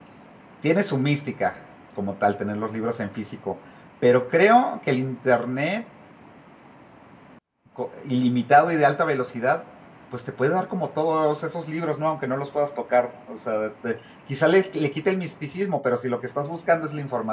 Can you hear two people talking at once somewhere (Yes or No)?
No